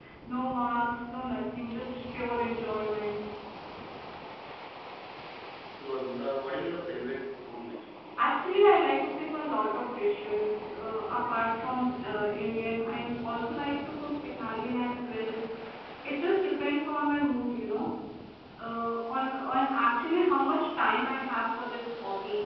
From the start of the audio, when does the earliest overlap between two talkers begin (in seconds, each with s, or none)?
none